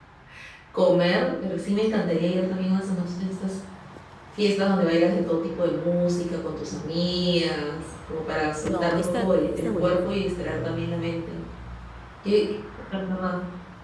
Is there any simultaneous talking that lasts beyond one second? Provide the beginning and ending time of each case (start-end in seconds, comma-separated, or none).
8.6-9.9